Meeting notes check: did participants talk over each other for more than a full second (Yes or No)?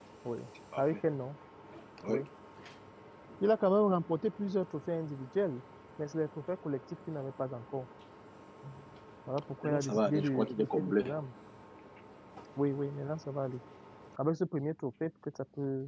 Yes